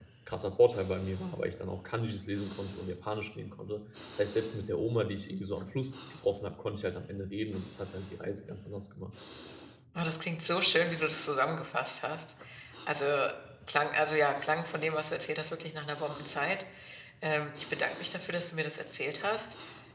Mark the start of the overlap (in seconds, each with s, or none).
none